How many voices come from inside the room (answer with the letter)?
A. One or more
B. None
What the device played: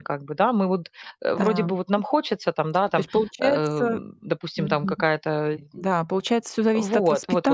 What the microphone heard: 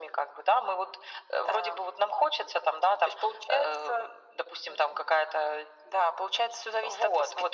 B